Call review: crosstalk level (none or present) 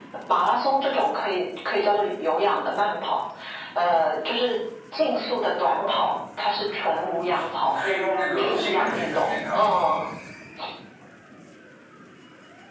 present